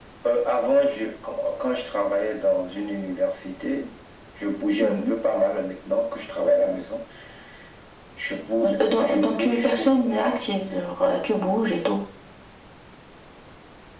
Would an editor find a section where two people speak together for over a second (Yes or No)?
Yes